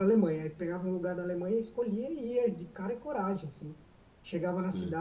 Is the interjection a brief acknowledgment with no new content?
Yes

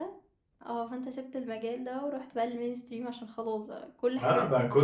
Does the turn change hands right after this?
Yes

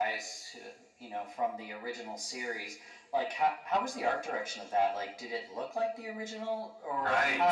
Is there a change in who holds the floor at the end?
Yes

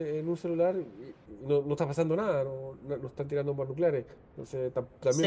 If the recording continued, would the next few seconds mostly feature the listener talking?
Yes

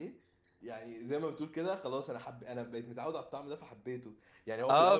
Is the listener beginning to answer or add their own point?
Yes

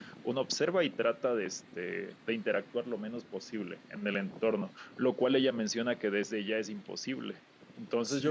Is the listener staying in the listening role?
Yes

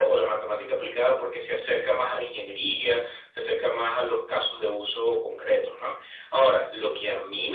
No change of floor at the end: Yes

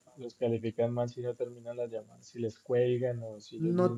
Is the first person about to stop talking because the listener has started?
Yes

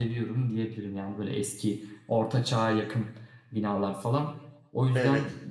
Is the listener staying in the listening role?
Yes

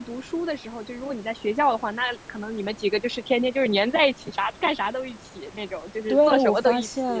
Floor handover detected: Yes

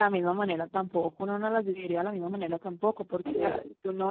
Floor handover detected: No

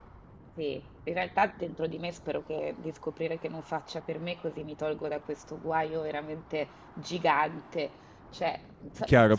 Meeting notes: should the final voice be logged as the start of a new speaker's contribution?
Yes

